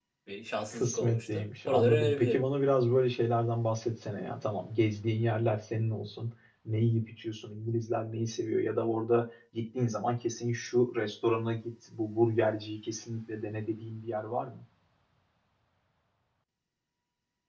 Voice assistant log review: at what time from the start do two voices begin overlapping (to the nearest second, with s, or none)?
1 s